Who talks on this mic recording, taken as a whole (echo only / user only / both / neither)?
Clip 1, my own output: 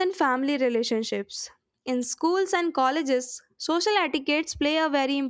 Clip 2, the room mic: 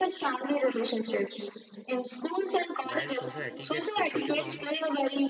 both